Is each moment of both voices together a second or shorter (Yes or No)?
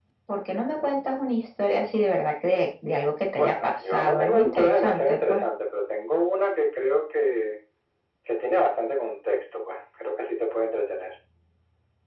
No